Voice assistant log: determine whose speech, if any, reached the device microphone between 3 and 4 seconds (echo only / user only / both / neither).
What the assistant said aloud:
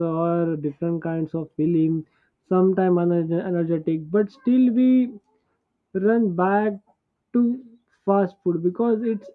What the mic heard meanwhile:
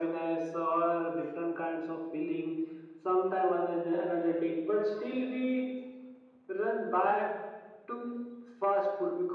echo only